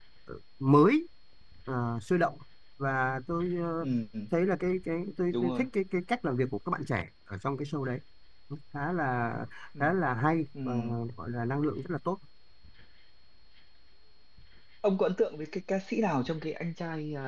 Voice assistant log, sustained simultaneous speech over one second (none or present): none